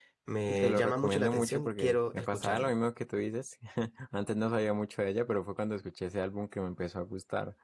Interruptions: present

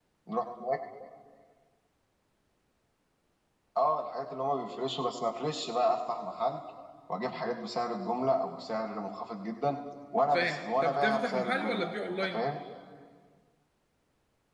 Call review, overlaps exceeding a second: present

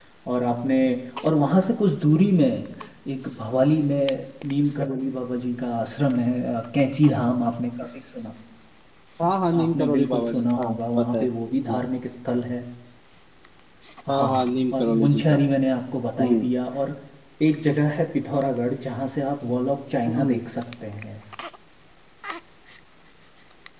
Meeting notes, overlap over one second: present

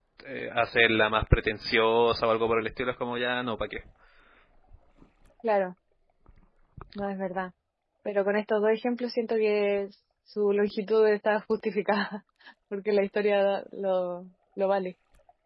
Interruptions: none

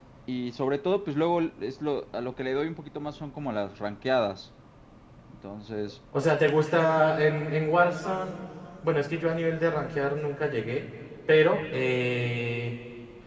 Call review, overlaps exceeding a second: none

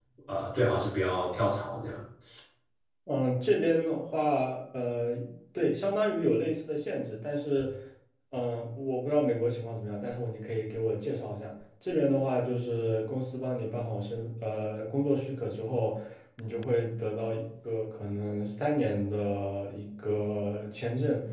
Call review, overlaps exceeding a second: none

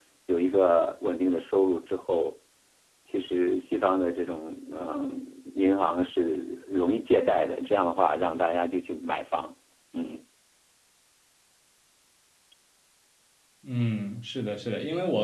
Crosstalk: none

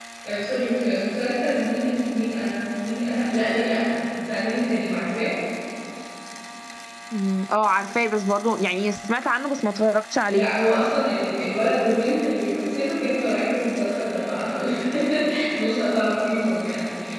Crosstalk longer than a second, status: none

